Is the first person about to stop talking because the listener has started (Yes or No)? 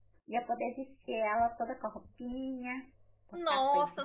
Yes